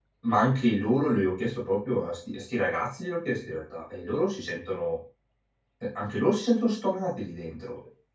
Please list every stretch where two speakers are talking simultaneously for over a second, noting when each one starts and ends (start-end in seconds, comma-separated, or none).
none